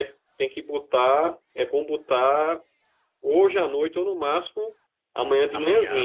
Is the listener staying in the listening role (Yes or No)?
Yes